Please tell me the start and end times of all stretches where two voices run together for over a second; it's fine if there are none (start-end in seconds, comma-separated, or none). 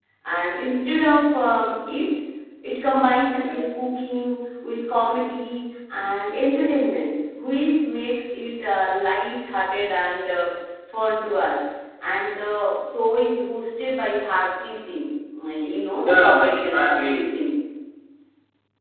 16.0-17.4